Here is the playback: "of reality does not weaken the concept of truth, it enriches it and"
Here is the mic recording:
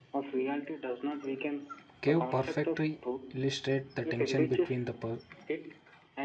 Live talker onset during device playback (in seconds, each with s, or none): 2.0 s